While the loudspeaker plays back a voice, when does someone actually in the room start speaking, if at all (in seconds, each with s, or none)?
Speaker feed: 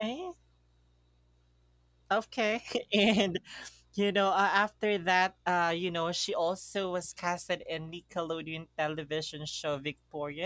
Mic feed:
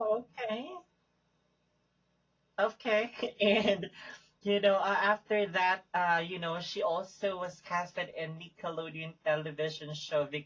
none